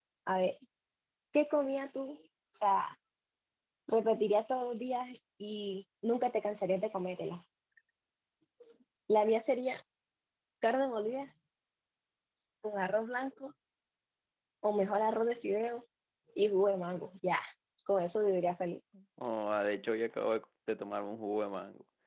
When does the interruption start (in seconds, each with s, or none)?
none